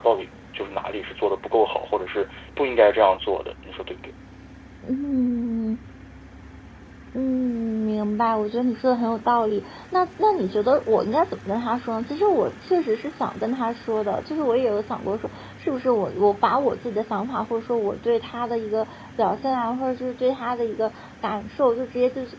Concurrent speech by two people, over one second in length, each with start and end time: none

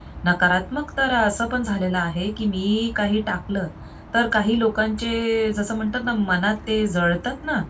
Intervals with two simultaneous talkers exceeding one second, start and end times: none

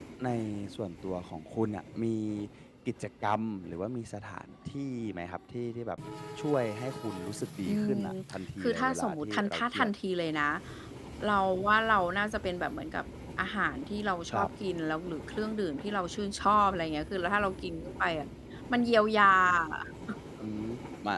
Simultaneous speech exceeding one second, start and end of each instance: 8.6-9.9

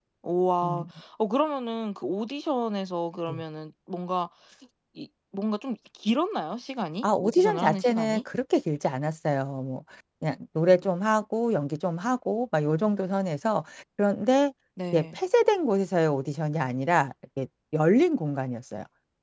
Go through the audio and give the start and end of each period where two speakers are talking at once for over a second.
7.0-8.2

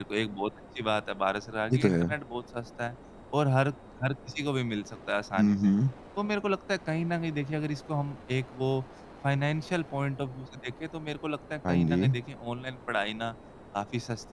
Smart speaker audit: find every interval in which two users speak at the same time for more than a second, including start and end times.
none

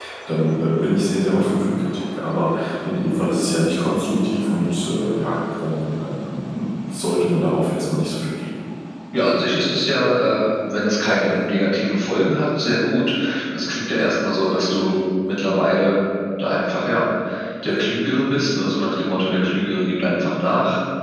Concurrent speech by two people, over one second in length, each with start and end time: none

